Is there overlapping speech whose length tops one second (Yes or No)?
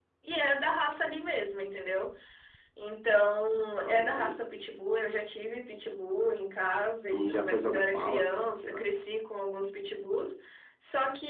Yes